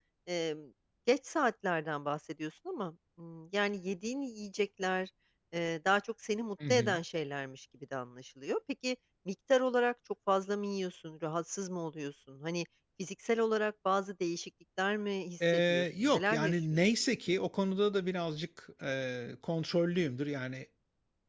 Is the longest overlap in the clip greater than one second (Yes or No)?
Yes